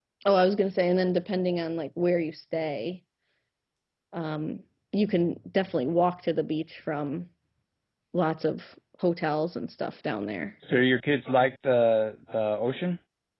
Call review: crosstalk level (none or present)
none